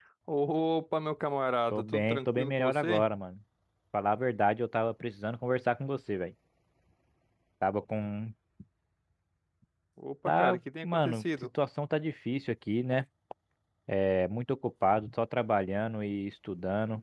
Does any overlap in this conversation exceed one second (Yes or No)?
Yes